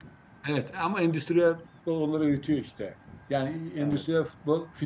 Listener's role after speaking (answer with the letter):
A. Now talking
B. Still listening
B